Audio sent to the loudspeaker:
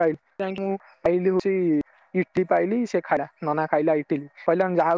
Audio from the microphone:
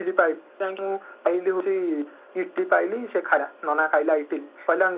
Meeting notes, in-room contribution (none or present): none